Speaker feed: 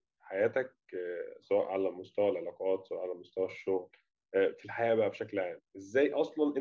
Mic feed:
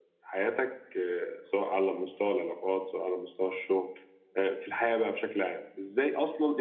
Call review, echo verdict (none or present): present